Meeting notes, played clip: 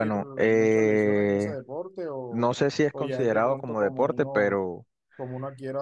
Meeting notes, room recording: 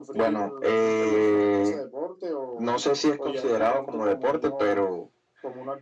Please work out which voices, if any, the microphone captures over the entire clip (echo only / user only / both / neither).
echo only